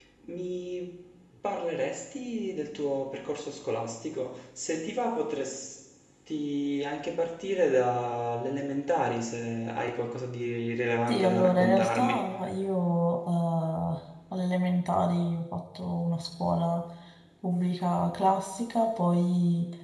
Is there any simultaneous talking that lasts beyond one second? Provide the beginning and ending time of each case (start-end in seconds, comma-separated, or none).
11.1-12.3